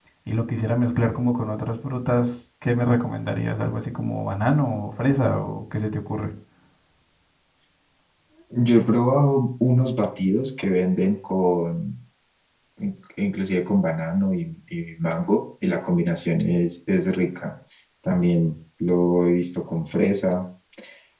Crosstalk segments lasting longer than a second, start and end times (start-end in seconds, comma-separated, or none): none